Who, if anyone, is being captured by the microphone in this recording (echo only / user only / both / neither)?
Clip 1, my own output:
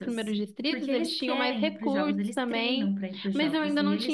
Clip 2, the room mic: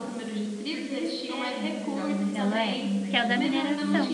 both